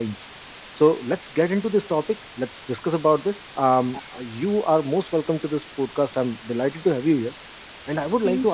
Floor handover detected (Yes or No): No